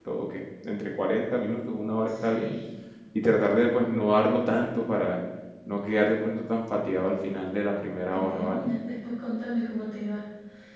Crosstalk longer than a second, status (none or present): none